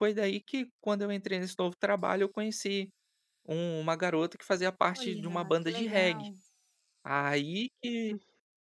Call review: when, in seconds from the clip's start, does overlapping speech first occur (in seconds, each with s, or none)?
4.9 s